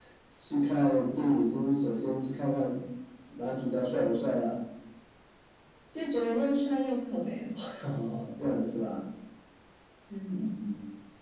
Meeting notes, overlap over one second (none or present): none